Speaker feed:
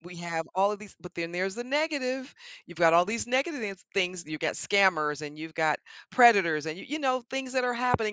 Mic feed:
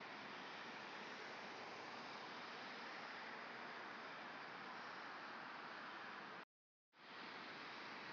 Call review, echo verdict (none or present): none